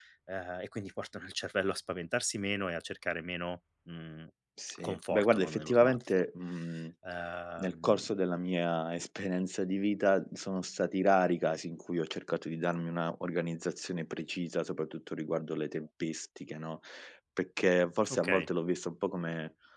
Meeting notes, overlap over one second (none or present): present